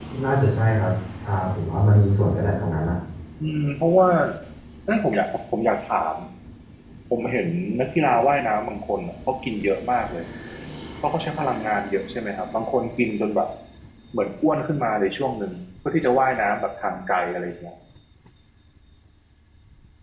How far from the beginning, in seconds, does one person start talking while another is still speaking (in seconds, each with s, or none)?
none